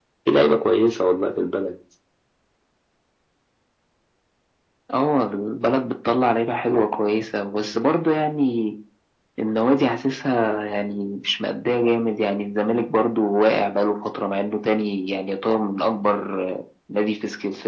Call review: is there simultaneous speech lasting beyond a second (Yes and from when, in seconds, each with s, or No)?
No